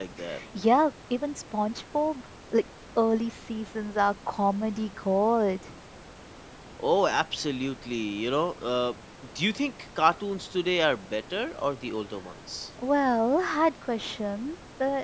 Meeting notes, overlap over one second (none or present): none